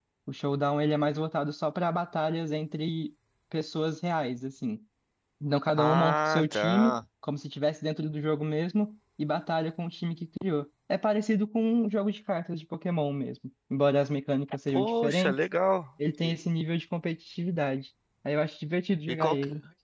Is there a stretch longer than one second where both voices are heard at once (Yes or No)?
Yes